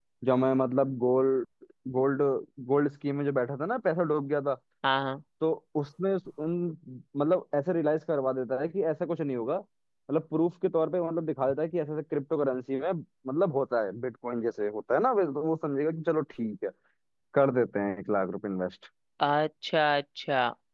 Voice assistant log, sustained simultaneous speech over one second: none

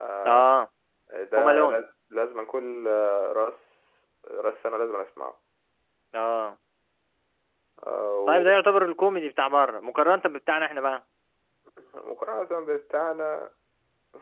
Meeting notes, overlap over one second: none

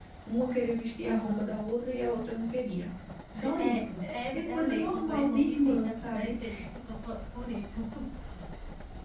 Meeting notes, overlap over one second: present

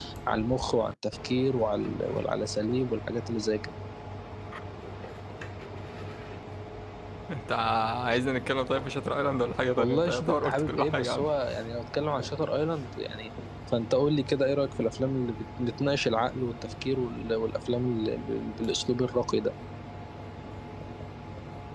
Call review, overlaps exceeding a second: present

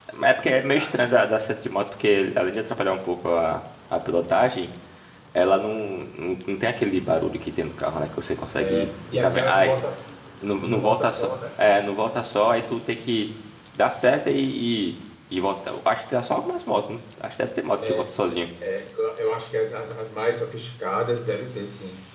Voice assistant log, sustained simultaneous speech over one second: present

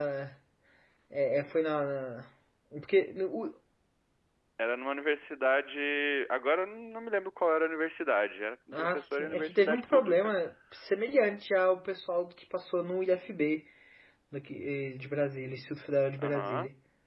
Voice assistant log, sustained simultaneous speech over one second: present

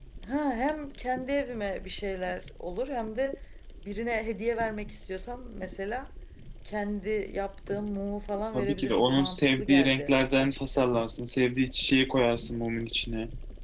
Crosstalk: present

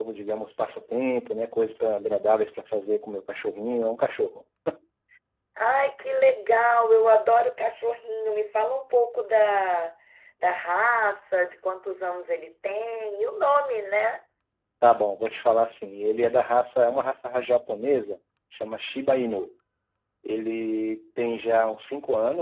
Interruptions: none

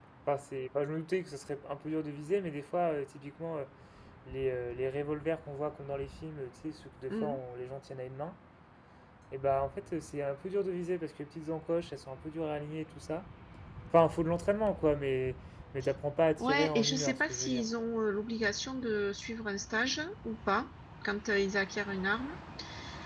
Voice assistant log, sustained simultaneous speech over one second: present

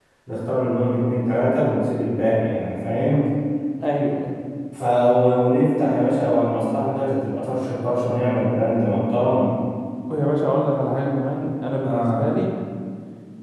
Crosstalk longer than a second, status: none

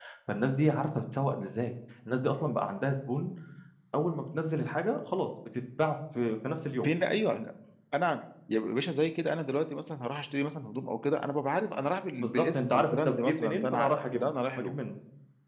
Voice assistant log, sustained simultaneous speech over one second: present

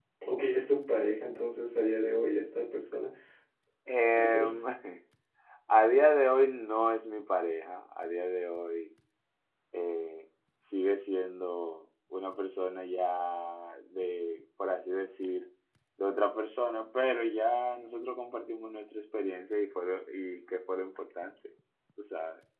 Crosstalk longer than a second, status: none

